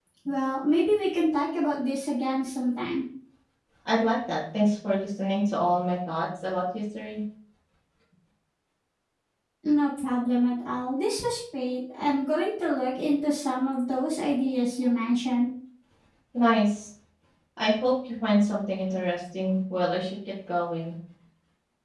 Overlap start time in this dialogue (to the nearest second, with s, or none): none